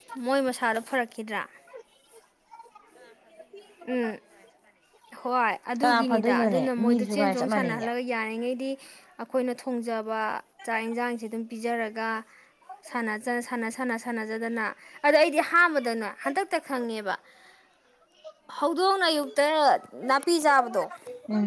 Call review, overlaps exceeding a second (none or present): present